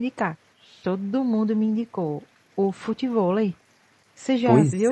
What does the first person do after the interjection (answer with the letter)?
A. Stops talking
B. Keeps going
A